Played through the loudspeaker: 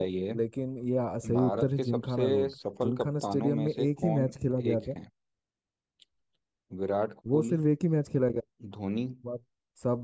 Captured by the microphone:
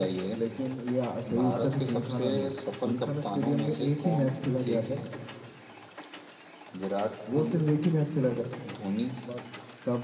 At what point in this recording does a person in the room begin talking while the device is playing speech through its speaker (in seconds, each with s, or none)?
none